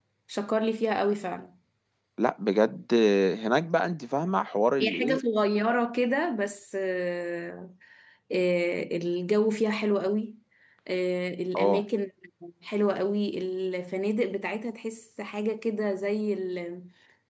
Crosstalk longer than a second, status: none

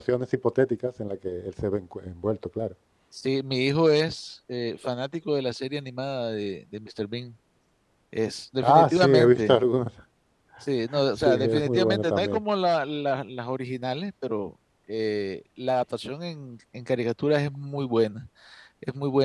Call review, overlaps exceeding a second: present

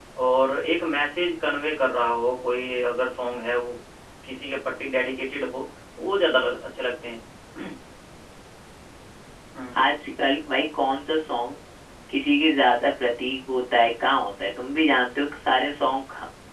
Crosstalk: none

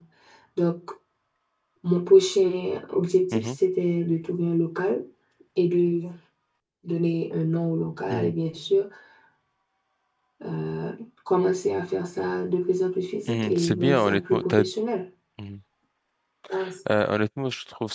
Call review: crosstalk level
present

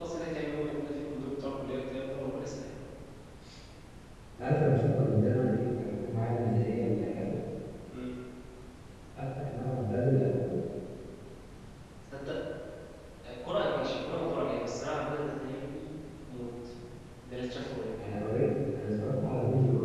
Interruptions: none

